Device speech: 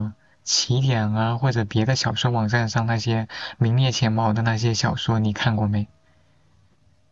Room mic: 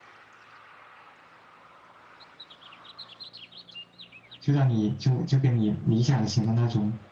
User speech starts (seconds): 4.4 s

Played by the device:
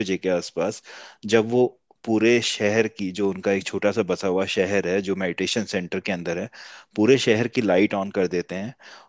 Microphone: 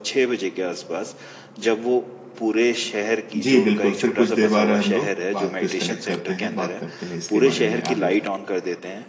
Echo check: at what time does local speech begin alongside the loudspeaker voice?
3.4 s

